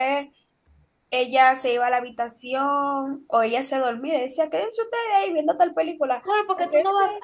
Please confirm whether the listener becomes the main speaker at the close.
Yes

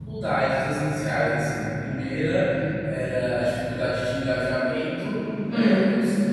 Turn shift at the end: No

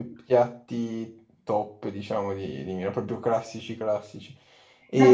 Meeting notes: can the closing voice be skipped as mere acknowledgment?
No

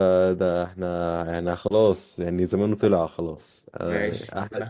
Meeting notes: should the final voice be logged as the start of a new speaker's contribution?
Yes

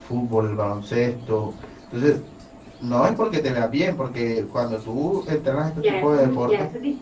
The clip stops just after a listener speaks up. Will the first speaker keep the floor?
No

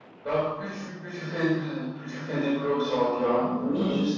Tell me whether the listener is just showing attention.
No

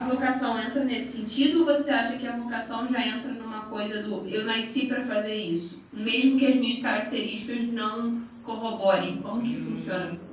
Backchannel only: No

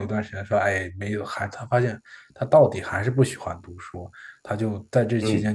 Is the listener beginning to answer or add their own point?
No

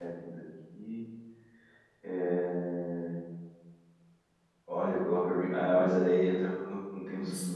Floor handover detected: Yes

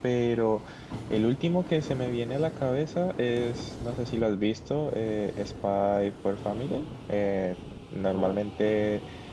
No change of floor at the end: Yes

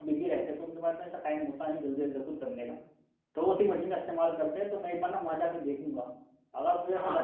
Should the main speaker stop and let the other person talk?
No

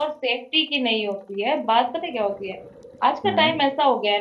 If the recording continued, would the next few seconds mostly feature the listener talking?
No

